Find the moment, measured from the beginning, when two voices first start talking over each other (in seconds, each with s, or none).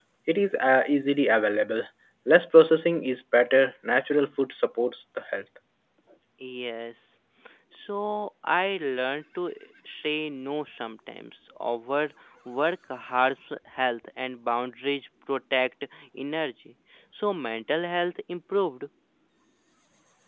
none